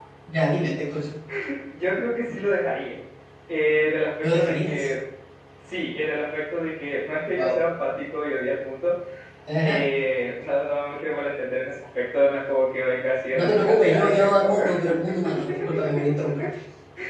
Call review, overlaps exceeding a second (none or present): present